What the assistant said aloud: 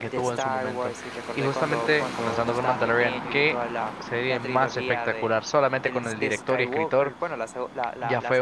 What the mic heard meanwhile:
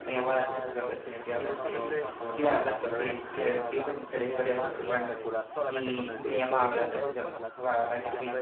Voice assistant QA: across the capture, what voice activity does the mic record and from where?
both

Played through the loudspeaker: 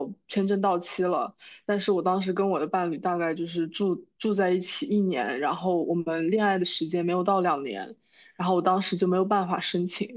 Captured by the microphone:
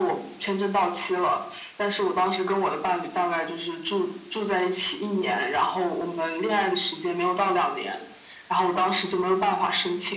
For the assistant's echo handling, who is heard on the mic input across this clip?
echo only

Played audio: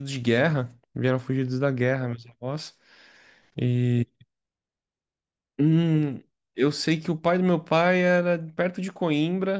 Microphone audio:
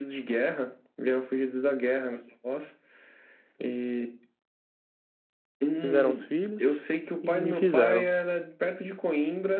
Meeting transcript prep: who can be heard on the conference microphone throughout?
both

